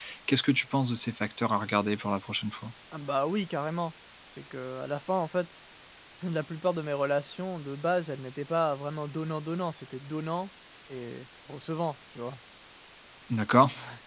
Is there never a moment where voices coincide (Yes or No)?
Yes